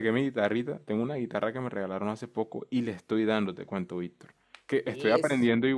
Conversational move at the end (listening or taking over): listening